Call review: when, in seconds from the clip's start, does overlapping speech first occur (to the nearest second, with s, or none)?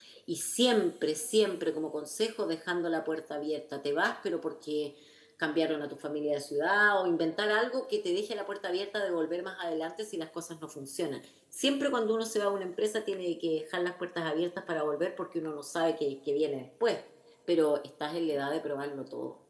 none